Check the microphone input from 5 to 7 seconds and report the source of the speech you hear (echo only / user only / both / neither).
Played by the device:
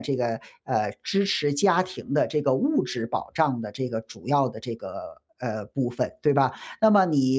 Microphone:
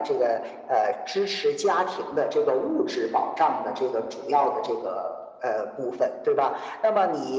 echo only